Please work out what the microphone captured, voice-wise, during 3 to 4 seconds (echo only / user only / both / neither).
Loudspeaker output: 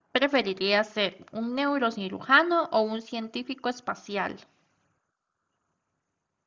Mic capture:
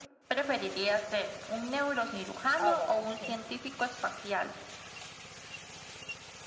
both